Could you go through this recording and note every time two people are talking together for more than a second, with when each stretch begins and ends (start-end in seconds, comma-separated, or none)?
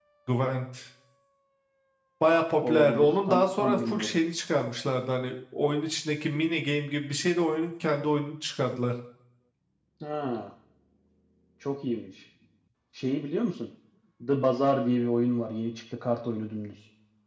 2.6-4.2